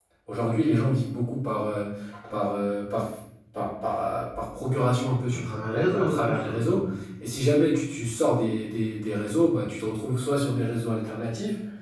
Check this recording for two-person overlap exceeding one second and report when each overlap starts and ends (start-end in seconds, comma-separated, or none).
5.3-6.8